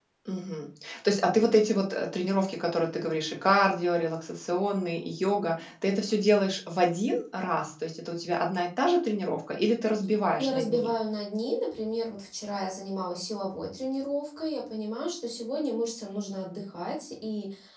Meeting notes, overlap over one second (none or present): none